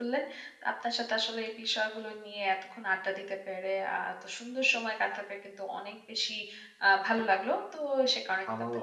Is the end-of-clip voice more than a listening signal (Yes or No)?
Yes